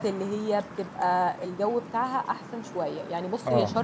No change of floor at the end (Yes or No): Yes